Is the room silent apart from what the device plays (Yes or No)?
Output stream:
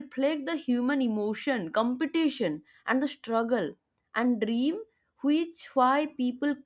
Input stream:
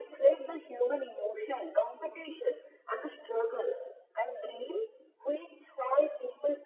Yes